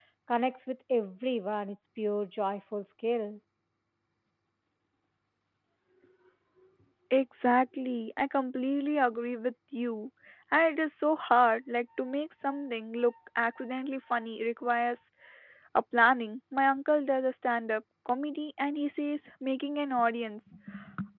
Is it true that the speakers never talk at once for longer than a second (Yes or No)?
Yes